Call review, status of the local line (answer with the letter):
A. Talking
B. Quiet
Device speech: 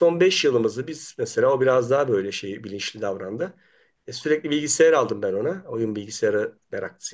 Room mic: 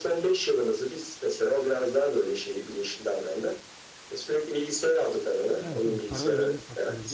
A